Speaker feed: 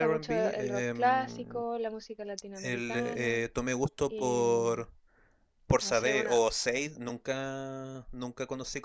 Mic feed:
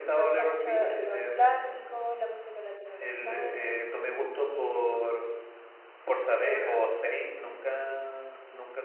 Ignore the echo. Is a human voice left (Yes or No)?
Yes